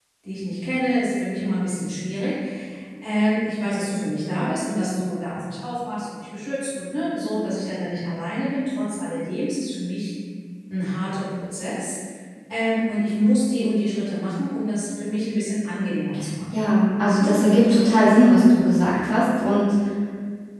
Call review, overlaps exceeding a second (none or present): present